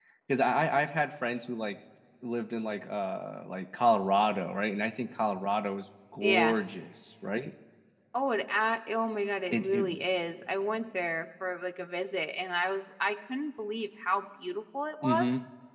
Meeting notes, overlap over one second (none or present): none